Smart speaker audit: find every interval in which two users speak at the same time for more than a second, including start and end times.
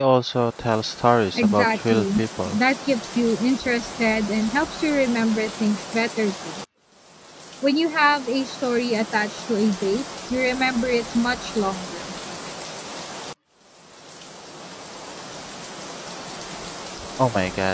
1.4-2.6

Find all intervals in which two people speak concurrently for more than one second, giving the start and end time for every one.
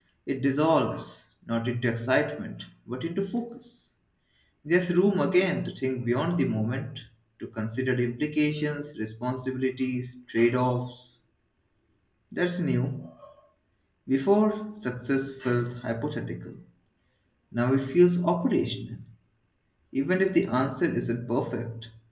none

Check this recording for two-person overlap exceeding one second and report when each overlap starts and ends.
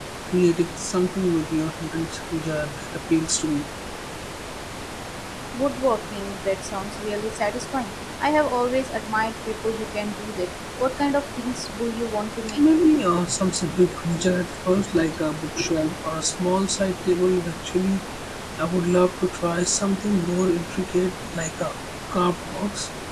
none

